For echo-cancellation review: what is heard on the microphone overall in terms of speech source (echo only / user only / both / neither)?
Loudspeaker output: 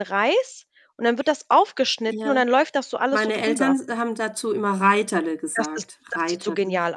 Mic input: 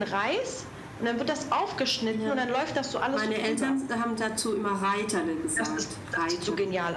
echo only